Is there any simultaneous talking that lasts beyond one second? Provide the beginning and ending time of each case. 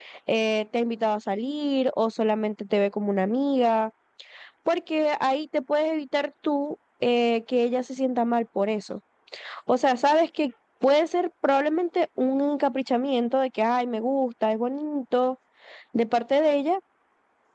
none

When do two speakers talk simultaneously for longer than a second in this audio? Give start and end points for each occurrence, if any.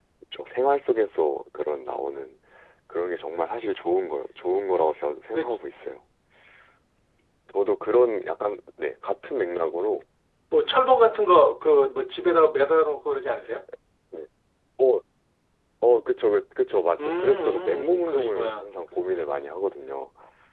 17.0-18.7

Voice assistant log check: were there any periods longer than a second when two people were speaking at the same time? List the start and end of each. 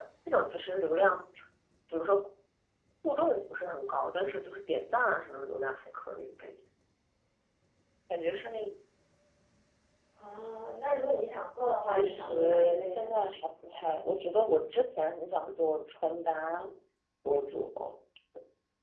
11.8-13.2

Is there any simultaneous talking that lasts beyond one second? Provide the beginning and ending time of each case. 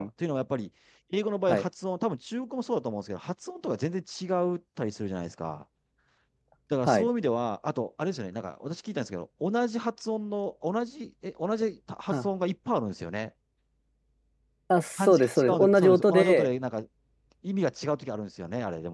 15.0-16.5

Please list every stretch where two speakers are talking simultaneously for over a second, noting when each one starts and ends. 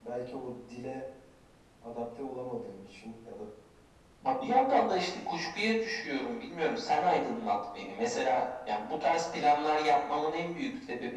none

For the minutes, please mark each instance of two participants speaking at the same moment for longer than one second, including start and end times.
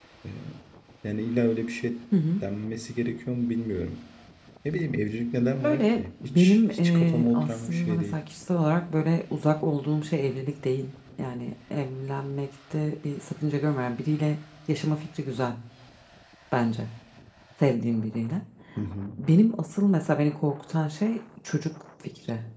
5.6-8.2

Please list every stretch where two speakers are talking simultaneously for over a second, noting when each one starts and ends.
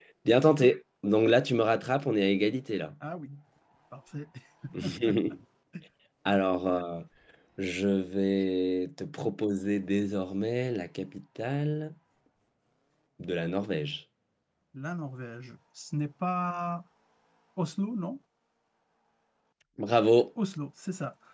none

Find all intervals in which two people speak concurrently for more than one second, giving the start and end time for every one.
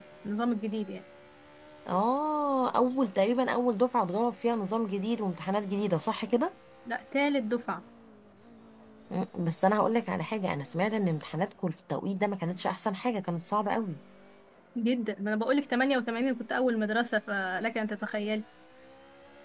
none

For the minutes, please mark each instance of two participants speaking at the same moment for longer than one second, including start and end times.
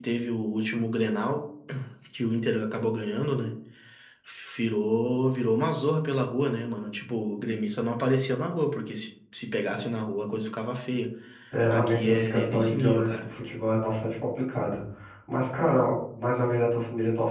11.7-13.2

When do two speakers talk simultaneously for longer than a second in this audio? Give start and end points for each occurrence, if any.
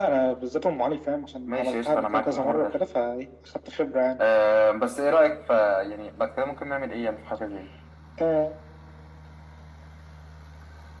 1.5-2.7

